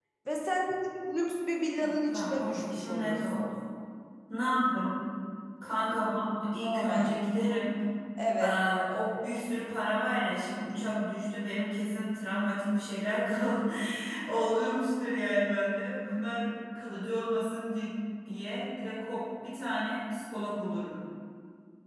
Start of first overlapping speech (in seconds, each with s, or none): 1.8 s